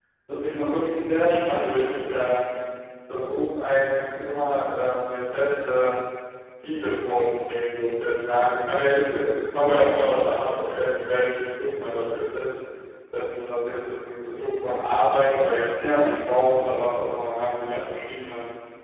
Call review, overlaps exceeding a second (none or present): present